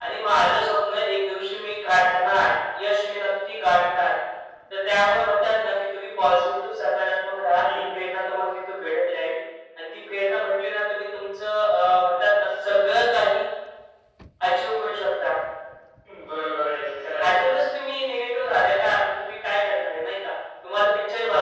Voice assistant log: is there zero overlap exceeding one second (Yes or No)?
Yes